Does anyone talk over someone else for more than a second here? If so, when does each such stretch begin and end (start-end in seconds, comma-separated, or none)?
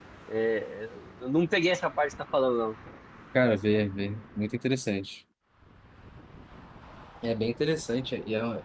none